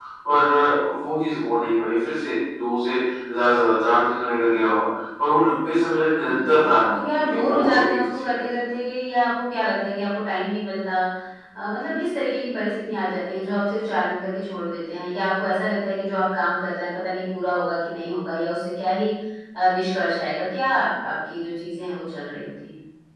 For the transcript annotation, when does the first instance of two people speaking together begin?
6.3 s

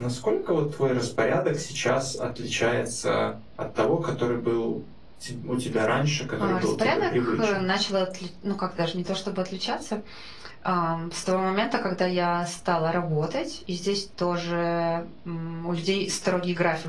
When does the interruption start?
6.4 s

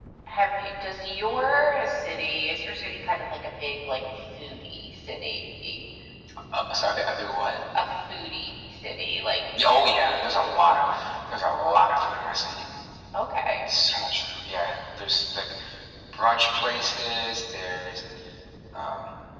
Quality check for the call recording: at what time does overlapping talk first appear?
none

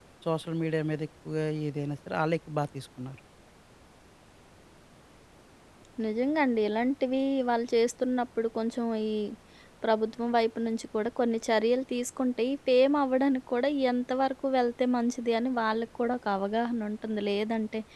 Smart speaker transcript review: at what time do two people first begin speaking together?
none

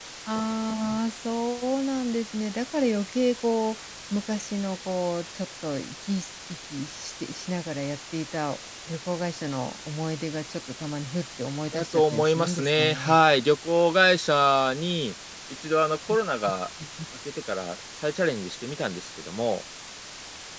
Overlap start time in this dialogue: 11.7 s

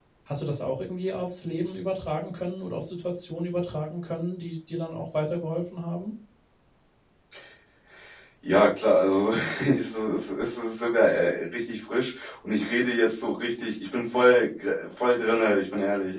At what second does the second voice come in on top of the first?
none

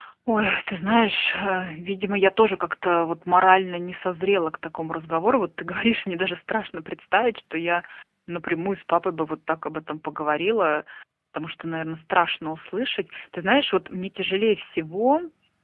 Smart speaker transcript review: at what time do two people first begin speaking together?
none

